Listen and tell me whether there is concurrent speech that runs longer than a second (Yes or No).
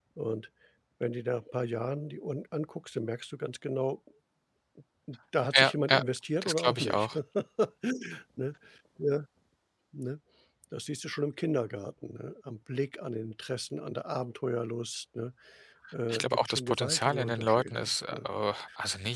Yes